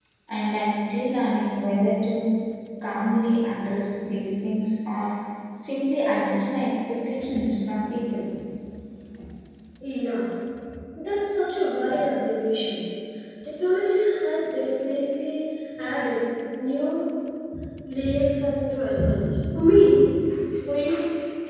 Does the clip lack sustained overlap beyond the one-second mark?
Yes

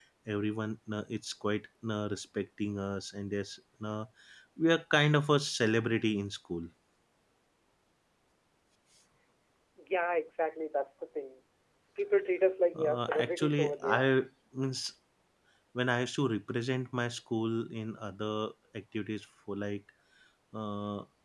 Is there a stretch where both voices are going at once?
Yes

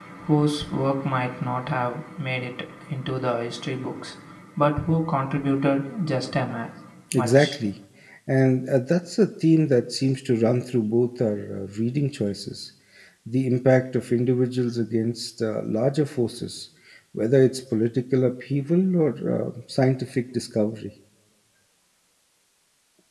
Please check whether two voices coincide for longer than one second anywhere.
No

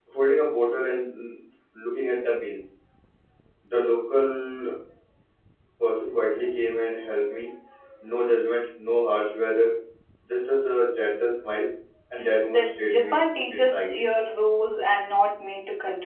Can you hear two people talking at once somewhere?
Yes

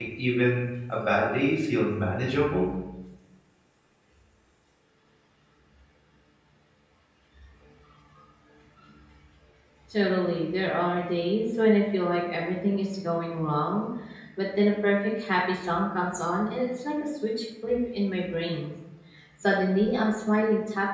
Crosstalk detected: No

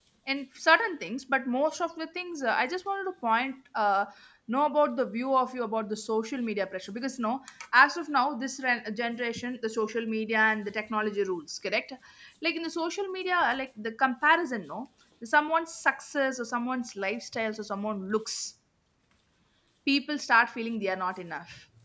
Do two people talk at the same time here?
No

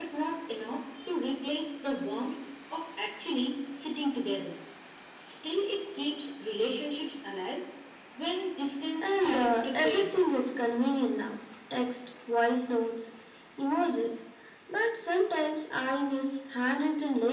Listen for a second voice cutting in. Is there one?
Yes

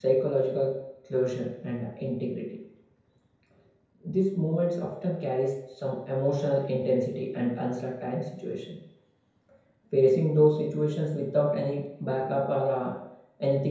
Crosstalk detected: No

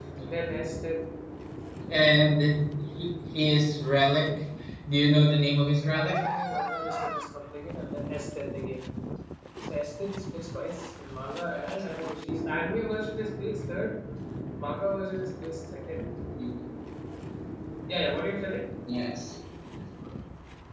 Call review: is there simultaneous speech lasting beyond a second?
No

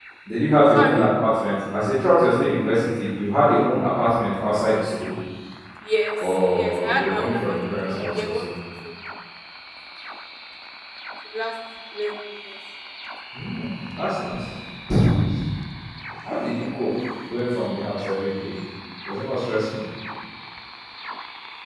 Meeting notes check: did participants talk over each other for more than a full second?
Yes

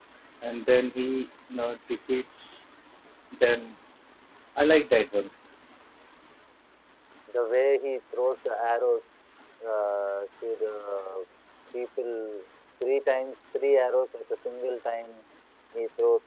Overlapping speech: No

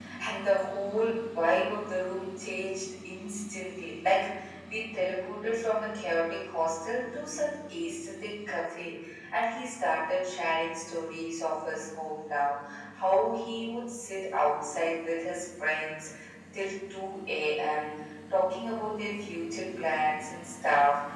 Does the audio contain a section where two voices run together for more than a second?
No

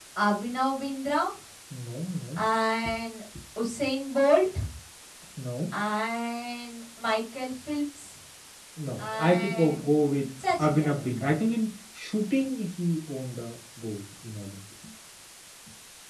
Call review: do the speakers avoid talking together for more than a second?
No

